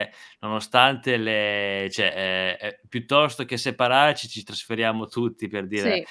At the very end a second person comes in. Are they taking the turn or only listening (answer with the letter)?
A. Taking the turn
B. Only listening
B